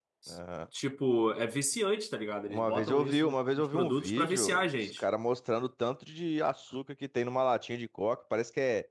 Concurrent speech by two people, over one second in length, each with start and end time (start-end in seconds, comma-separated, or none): 2.5-5.0